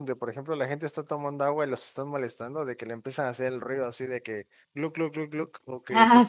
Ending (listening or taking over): listening